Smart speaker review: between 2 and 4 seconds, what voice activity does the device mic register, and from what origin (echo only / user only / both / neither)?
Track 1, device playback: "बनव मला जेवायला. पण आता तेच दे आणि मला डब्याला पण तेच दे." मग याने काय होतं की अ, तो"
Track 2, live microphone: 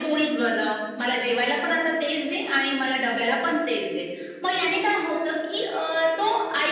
echo only